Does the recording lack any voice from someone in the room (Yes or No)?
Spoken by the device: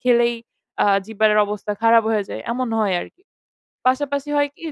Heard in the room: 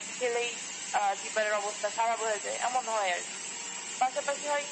Yes